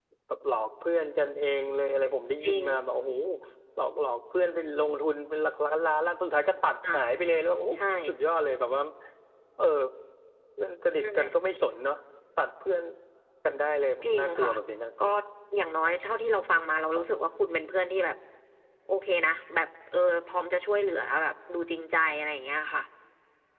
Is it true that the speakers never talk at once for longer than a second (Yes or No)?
Yes